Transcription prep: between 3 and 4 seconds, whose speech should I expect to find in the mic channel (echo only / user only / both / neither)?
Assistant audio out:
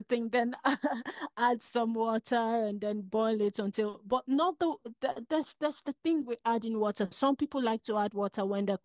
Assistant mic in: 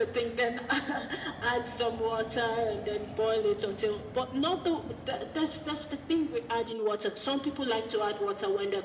echo only